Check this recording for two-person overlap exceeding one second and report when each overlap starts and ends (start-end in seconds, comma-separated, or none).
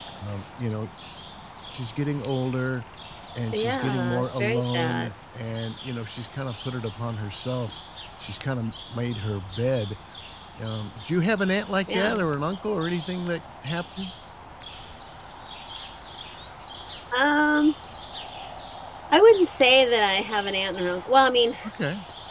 3.5-5.1